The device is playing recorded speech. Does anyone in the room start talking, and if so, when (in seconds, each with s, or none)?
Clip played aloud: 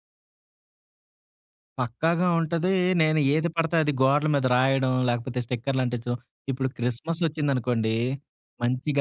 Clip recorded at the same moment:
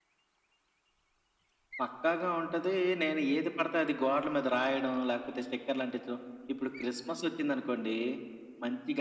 none